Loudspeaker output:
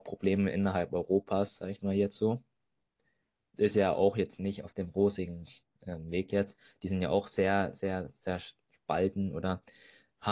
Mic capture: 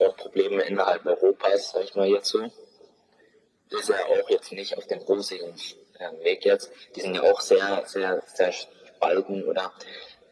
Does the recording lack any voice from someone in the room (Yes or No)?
Yes